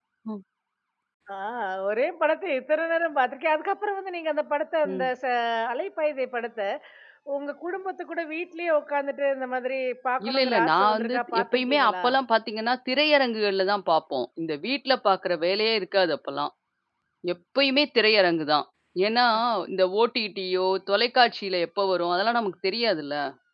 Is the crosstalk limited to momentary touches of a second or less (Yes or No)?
No